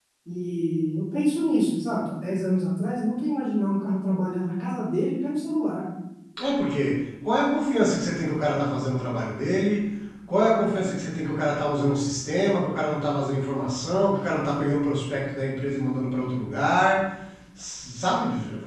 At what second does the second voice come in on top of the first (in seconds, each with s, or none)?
none